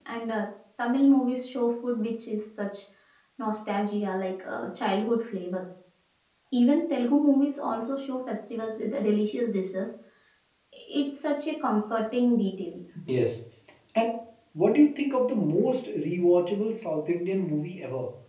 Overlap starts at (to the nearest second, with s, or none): none